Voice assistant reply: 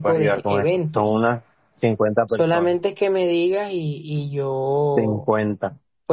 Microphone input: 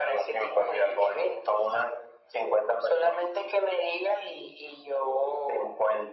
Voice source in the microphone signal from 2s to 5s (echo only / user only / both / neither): echo only